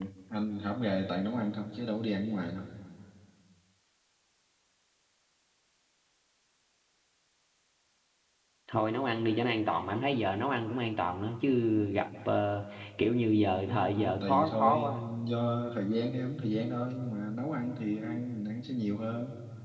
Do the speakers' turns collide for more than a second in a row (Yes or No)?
Yes